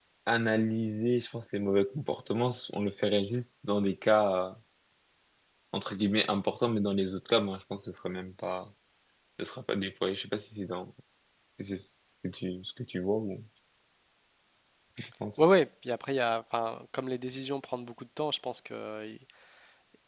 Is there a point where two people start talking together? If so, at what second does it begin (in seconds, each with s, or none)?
none